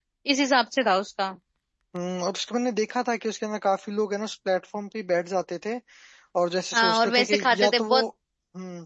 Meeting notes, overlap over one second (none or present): present